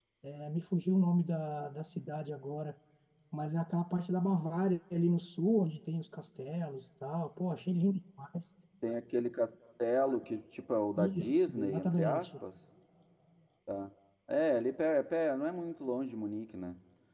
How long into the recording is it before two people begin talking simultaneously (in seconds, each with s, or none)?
11.0 s